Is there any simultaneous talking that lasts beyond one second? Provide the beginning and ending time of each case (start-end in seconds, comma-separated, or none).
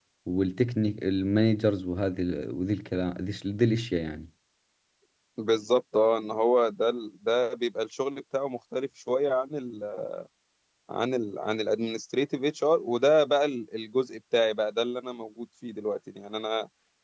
none